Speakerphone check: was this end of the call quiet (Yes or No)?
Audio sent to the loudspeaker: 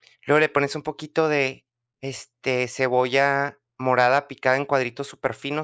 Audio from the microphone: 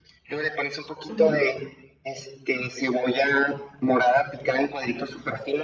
No